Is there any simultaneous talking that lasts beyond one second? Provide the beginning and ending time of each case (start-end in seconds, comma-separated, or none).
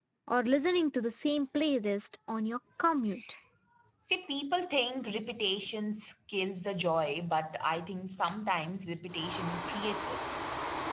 none